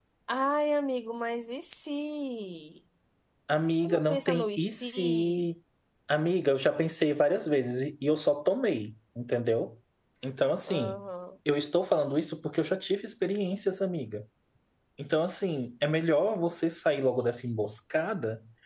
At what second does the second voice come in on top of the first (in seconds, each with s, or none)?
3.8 s